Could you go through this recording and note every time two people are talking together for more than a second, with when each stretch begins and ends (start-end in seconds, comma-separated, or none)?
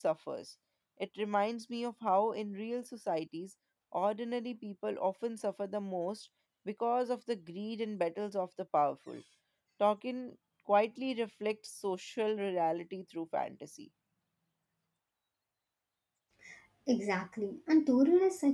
none